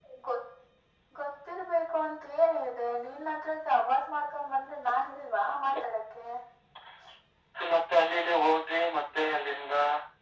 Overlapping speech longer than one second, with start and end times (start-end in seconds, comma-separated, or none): none